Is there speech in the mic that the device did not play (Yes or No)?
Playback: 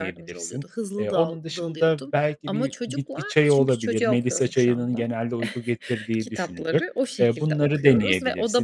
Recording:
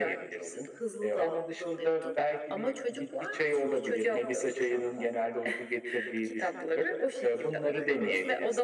No